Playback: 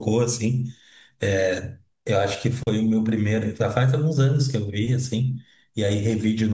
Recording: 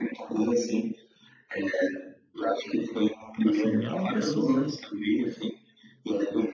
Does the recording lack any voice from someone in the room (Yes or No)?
No